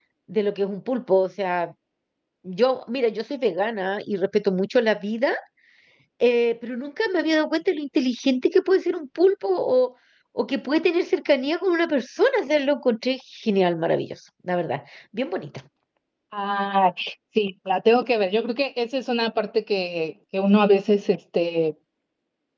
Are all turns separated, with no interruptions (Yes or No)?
Yes